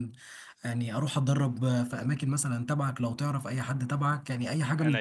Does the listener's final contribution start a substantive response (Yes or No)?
No